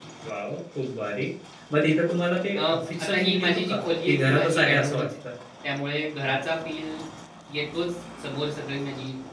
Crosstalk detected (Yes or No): Yes